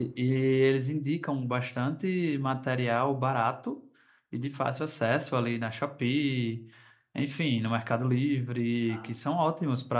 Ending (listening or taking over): listening